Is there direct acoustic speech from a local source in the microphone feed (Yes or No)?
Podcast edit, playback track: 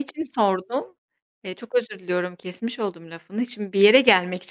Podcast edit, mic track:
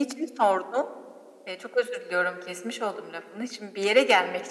No